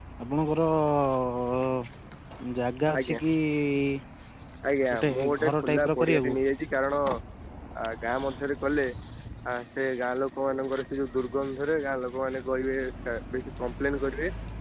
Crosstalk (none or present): present